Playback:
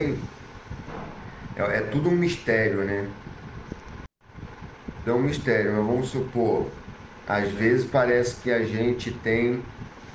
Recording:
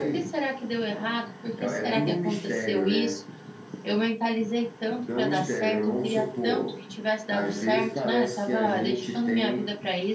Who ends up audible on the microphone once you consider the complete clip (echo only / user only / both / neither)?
both